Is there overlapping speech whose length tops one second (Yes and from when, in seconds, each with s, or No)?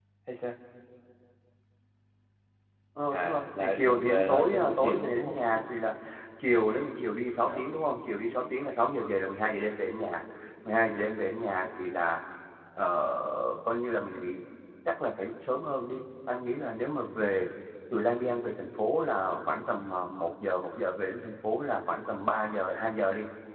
Yes, from 3.1 s